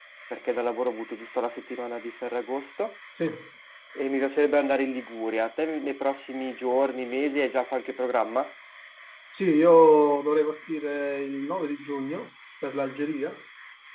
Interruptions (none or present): none